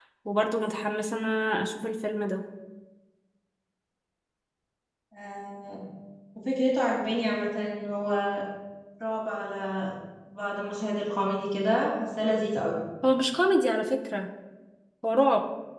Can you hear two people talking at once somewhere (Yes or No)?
No